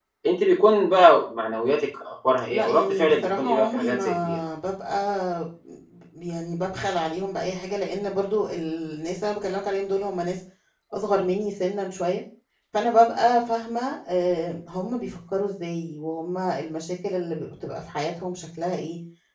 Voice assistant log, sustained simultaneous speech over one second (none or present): present